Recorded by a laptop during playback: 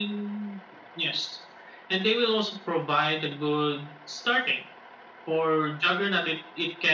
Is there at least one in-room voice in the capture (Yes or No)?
No